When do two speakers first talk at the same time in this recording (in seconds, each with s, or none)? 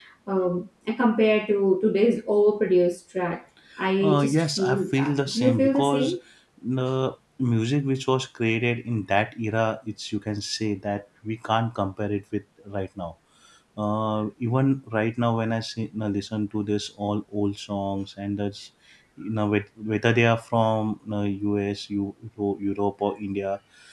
4.0 s